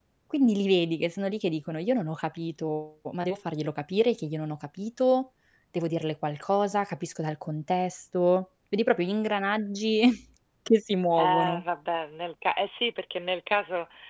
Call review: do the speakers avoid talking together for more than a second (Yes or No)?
Yes